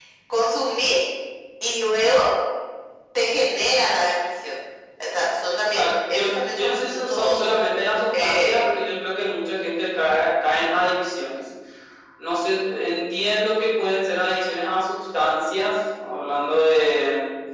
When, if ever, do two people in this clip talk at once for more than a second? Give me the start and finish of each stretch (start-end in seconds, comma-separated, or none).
5.6-7.5